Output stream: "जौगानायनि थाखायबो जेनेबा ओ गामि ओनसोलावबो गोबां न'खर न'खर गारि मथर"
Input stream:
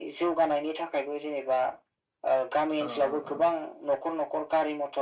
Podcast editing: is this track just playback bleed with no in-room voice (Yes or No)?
No